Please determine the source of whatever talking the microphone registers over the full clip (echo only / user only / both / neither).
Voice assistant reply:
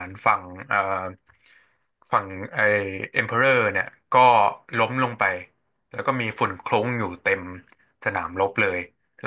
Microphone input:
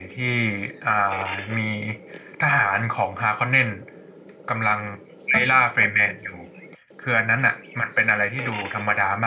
user only